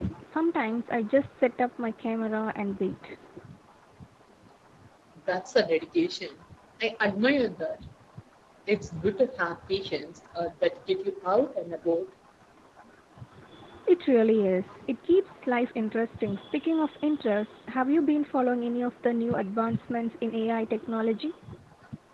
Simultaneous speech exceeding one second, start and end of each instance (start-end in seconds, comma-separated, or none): none